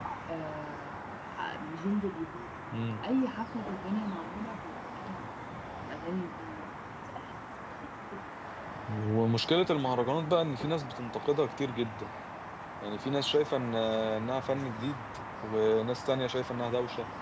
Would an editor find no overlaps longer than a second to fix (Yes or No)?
Yes